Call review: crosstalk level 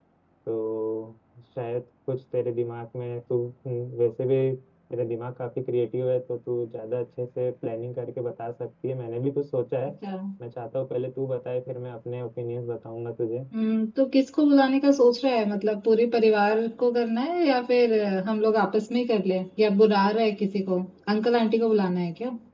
none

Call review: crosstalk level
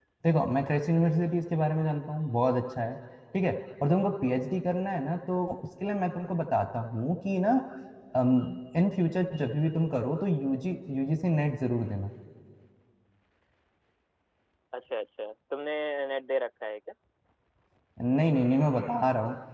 none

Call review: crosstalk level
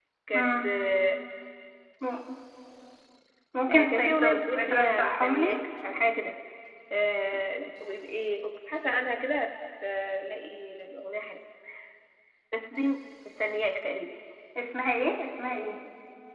present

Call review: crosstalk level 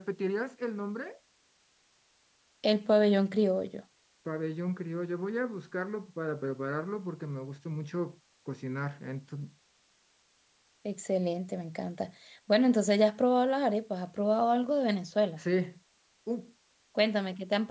none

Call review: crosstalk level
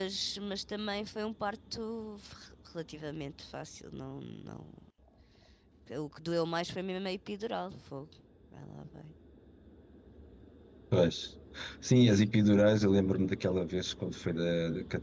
none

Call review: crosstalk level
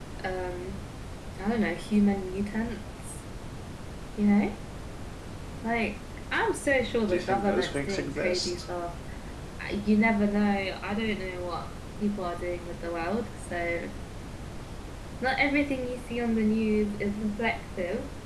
present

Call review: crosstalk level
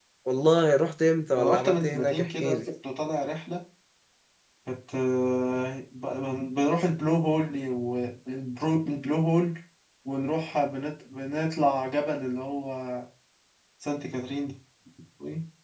present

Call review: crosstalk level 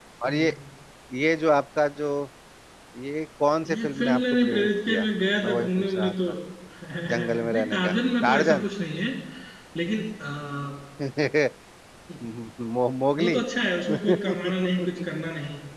present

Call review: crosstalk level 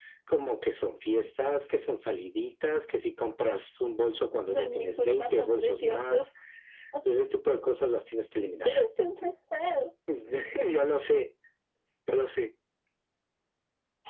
present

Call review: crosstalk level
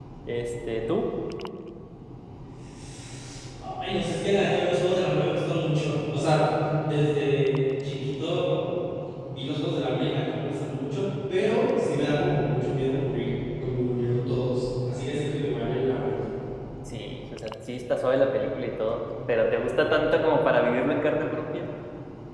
none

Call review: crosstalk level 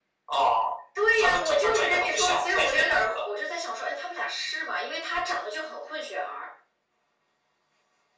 present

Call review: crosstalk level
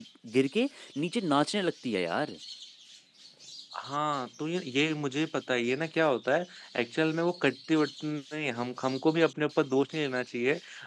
none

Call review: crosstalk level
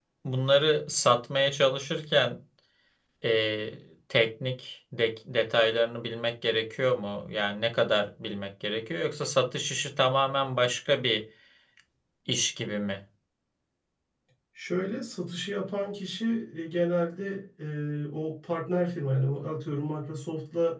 none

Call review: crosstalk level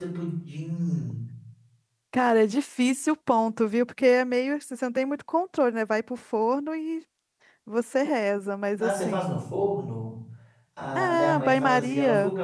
present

